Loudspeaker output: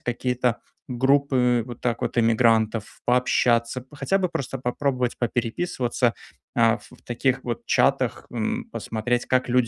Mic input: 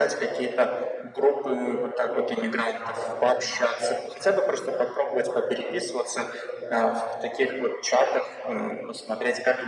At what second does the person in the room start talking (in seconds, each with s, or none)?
none